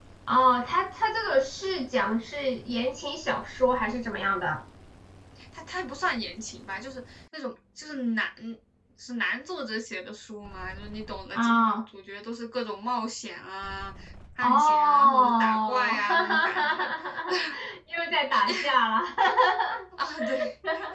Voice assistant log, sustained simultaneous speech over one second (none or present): present